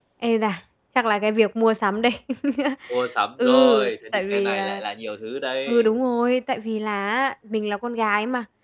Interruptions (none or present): present